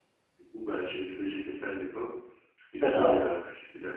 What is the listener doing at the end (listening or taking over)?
listening